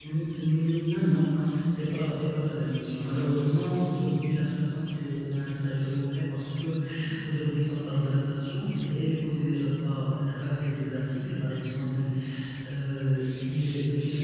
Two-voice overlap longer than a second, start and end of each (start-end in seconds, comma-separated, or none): none